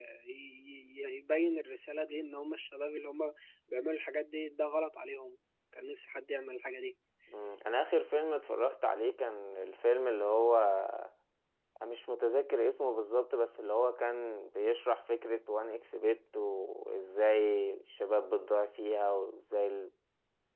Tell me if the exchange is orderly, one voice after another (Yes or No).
Yes